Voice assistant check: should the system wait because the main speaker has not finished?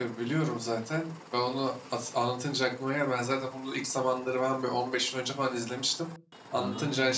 Yes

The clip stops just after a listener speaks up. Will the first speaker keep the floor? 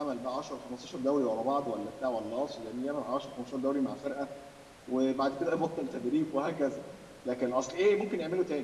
Yes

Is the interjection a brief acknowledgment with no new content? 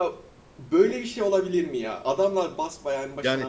No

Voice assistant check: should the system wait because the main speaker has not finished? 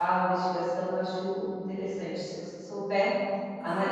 No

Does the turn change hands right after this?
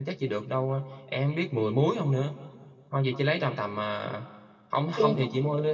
No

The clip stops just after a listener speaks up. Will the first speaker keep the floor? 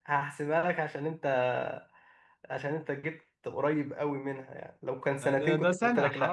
No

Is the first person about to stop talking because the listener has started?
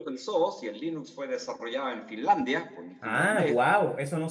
Yes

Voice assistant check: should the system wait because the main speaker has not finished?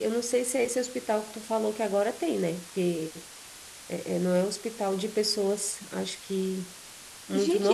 No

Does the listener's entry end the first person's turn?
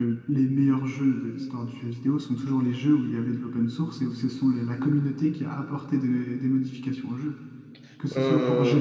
No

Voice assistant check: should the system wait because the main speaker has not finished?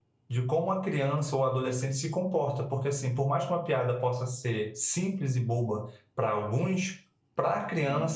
Yes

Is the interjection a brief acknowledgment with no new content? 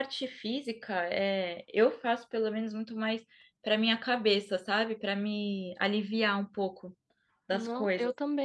No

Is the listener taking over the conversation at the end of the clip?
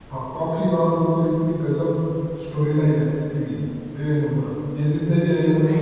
No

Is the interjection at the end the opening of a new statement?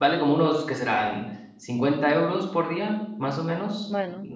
No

